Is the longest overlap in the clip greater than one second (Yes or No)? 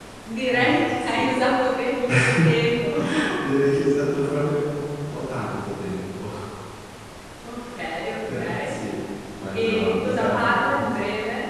Yes